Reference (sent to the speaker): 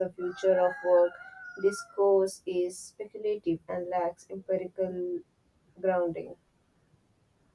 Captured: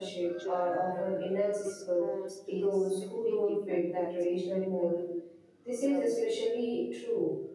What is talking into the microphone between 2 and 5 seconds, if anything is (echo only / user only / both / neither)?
both